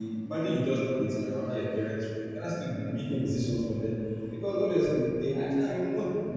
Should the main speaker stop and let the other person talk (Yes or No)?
No